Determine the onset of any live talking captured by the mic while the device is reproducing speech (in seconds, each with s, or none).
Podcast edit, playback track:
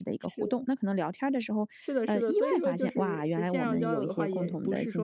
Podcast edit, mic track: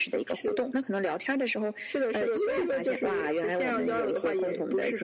none